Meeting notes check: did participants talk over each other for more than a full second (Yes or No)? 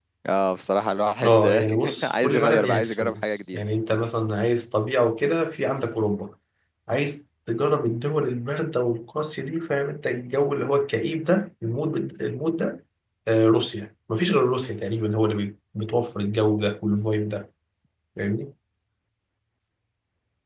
Yes